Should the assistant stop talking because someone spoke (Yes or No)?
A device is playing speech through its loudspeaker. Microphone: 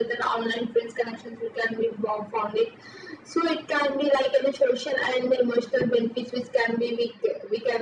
No